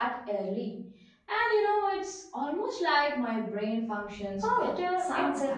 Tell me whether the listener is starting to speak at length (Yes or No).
Yes